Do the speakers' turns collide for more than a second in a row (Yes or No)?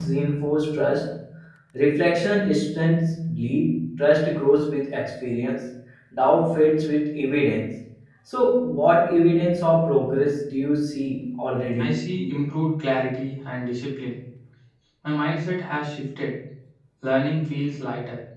No